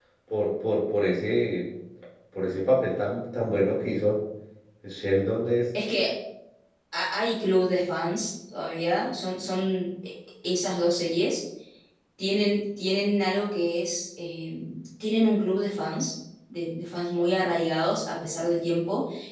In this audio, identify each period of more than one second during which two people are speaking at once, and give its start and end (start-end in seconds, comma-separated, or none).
none